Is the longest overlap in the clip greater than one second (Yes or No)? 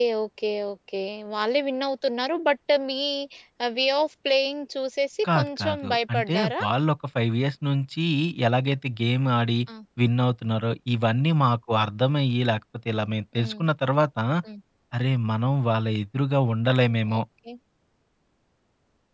Yes